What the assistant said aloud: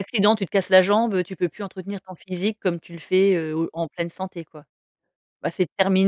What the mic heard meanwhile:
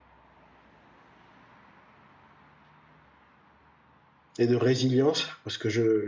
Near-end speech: present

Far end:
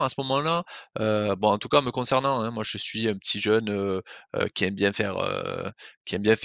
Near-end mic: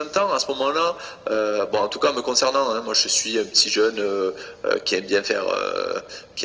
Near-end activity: none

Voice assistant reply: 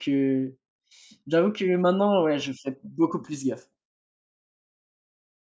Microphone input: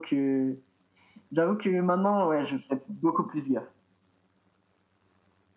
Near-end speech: none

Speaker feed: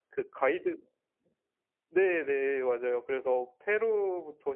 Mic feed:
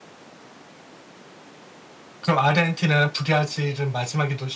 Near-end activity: present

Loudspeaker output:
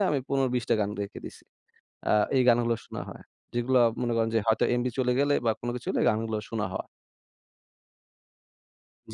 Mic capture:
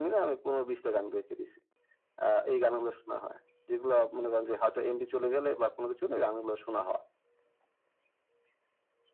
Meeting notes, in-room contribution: none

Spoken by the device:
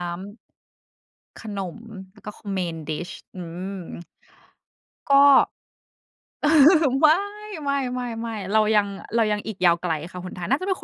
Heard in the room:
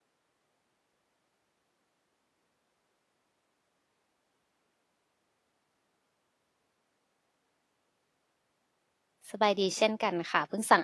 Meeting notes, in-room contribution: present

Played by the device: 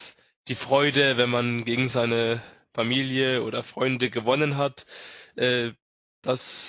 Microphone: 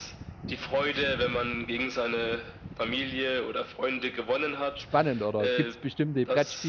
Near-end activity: present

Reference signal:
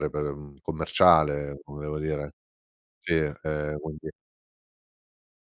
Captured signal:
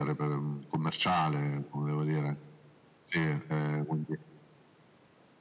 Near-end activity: none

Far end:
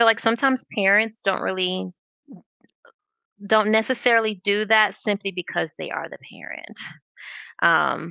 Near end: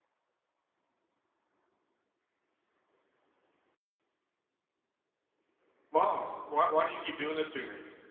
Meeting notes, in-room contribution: present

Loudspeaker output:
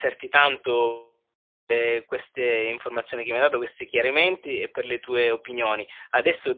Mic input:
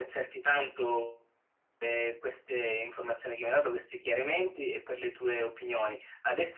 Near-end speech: none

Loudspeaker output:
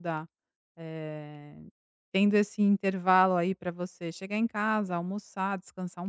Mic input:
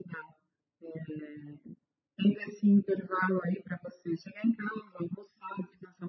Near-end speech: none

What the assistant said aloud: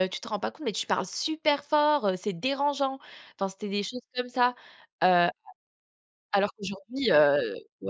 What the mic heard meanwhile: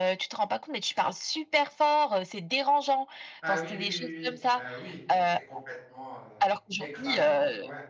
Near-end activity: present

